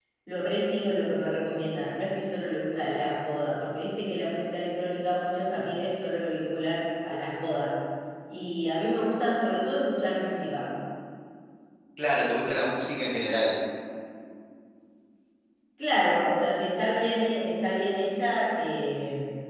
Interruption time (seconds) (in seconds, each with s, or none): none